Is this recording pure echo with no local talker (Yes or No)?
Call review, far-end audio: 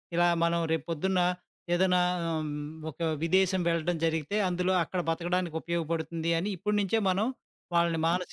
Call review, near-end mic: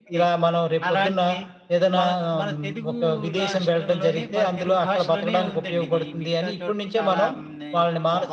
No